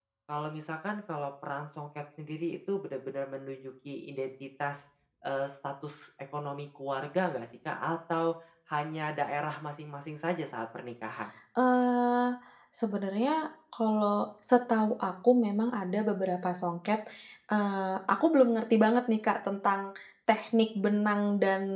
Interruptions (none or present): none